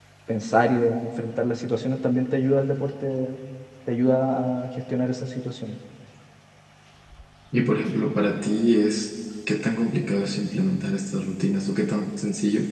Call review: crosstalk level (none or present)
none